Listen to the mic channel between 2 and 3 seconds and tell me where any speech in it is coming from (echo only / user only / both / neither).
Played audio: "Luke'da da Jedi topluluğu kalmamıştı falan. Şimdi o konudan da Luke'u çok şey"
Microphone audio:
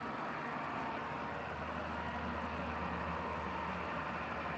neither